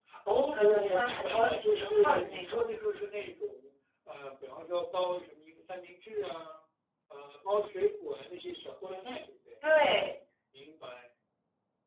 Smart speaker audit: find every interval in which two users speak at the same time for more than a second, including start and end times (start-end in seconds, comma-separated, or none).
0.5-2.6